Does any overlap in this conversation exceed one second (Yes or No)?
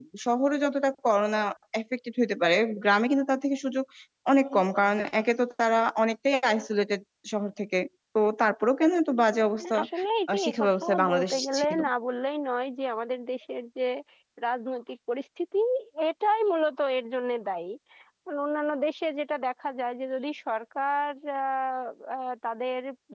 Yes